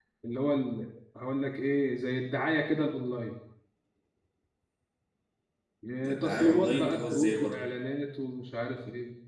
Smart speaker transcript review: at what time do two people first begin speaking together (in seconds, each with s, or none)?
6.0 s